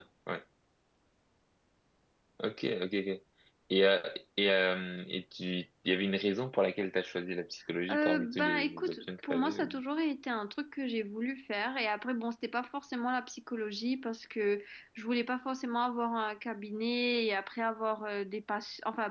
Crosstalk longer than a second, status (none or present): present